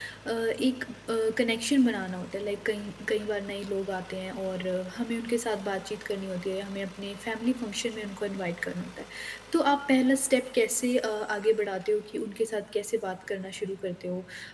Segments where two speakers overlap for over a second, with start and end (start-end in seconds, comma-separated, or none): none